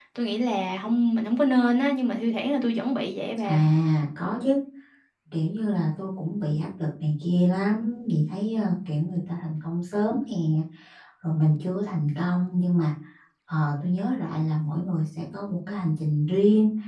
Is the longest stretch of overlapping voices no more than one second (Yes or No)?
Yes